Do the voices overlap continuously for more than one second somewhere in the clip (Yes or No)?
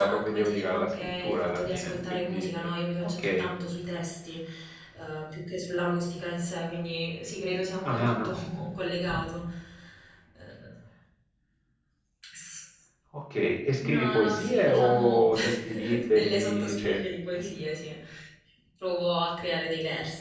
Yes